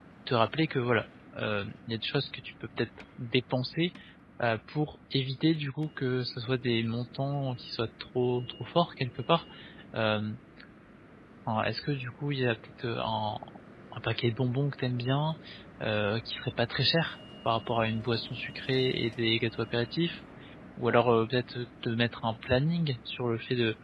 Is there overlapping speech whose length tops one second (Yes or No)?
No